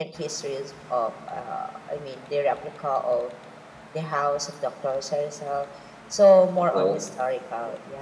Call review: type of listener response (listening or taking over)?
listening